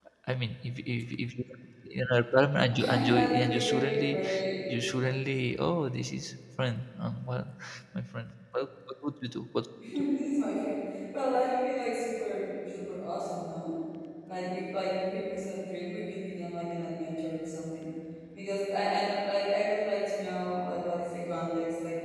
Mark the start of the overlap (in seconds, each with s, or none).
2.7 s